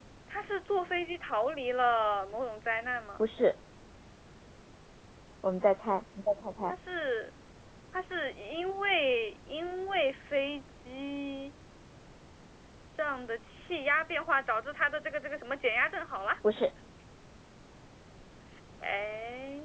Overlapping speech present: No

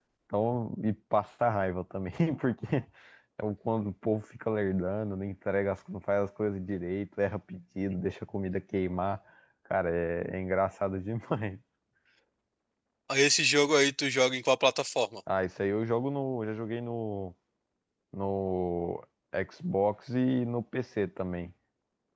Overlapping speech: No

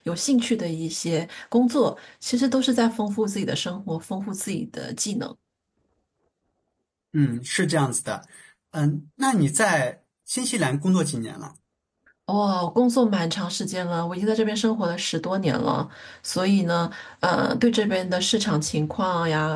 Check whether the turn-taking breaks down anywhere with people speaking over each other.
No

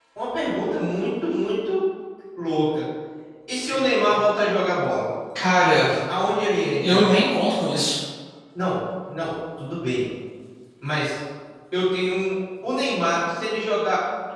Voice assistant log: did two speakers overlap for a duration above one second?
No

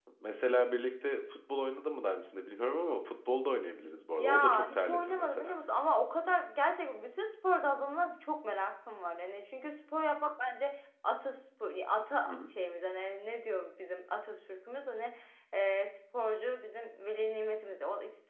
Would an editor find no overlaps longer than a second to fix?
No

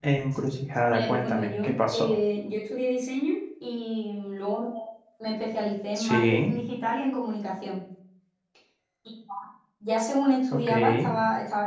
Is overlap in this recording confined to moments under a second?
No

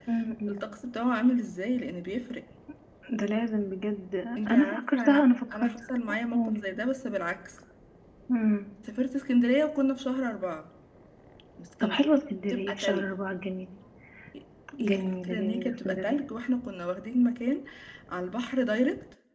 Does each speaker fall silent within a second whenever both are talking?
No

